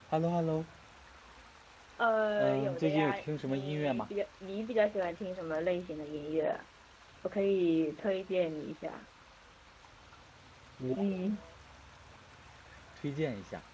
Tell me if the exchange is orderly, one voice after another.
No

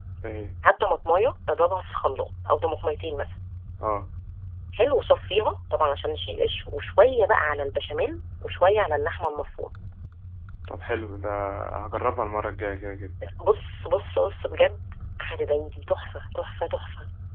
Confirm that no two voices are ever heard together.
Yes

